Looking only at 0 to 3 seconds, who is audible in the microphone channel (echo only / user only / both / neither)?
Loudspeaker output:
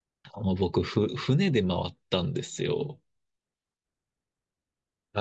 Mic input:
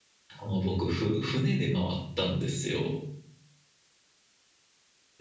echo only